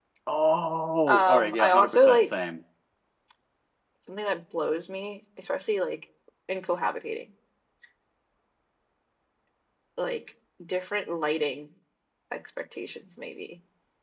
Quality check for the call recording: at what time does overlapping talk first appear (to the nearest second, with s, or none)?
1 s